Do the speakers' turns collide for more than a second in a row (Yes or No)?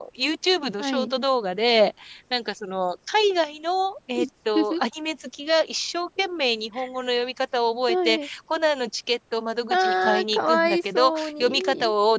Yes